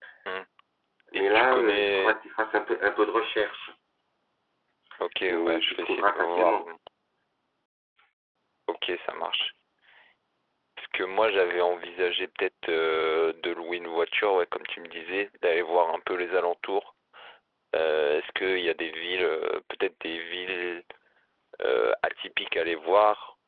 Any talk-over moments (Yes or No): Yes